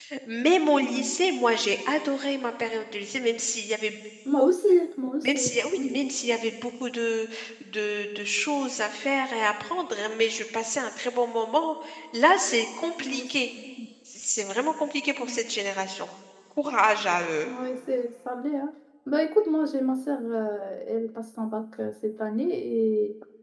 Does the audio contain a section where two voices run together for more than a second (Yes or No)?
No